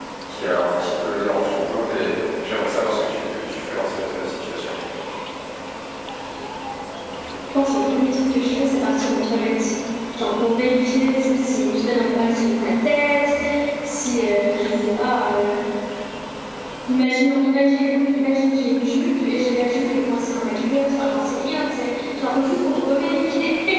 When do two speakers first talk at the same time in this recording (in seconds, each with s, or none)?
none